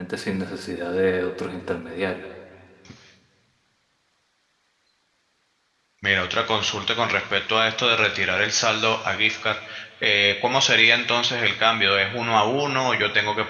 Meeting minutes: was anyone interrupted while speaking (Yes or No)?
No